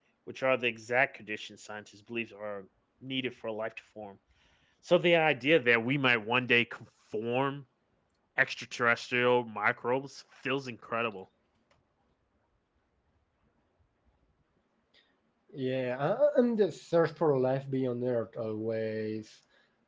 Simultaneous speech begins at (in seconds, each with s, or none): none